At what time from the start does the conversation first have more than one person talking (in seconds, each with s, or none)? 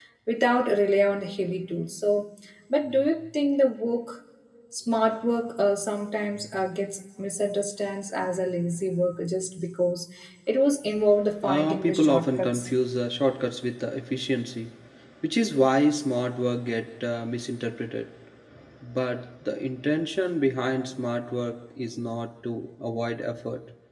11.4 s